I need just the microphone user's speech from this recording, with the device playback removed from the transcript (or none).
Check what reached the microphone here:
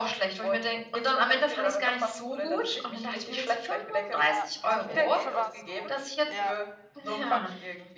Ja, dafür für was so? Ja.